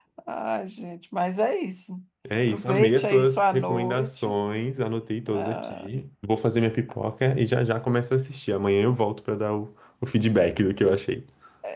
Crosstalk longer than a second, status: present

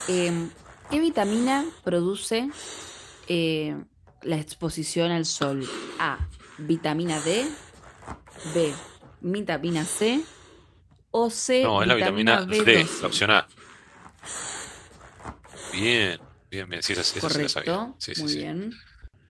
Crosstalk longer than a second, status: present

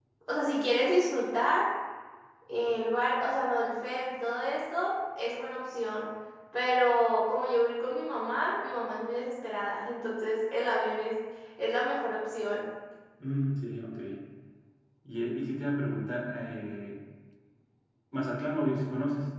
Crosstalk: none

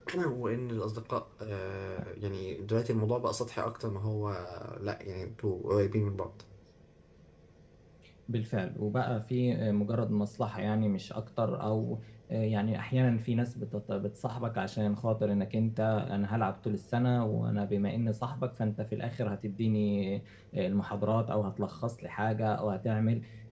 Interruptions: none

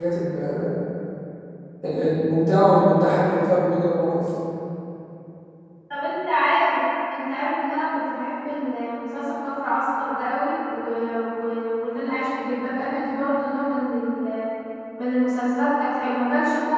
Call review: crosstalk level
none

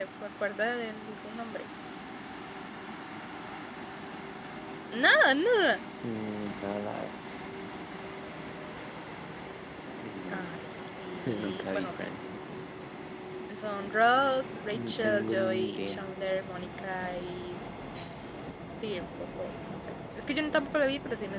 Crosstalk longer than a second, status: present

